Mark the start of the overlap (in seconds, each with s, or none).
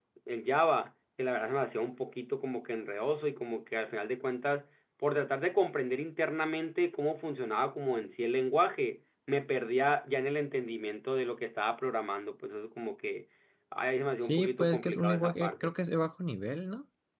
14.2 s